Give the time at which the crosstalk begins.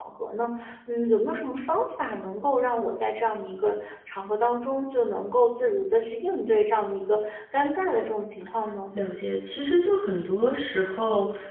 none

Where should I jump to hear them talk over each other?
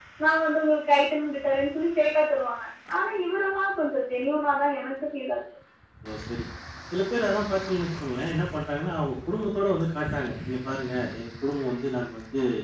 none

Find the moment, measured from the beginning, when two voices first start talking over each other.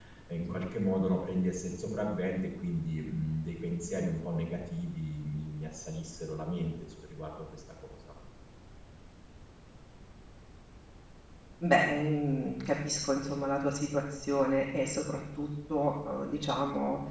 none

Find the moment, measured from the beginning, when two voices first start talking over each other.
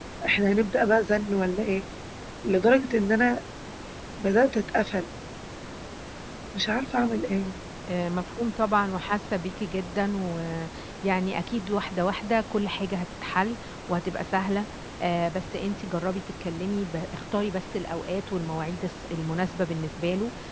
none

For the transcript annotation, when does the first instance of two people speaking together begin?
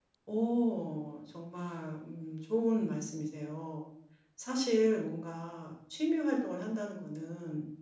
none

